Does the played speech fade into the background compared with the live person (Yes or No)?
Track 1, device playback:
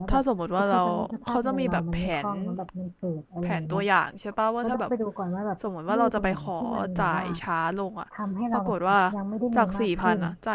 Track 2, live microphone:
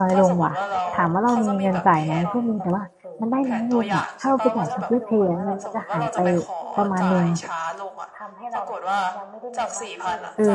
Yes